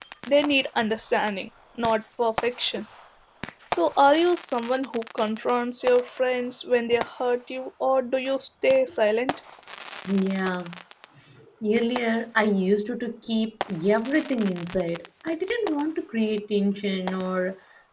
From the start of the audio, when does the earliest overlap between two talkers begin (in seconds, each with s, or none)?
none